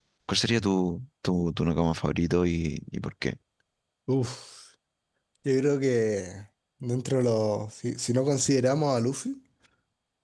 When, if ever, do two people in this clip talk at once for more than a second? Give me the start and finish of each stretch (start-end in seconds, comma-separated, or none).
none